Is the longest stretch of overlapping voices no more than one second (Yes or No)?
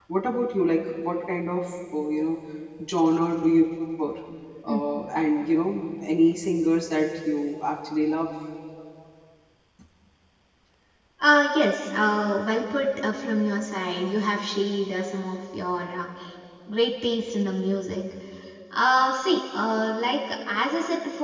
Yes